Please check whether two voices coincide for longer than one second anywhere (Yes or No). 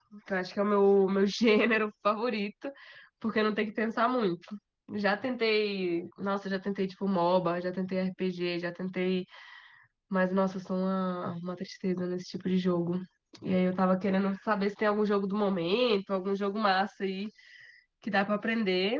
No